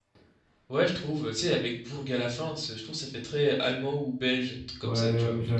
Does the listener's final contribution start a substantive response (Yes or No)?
Yes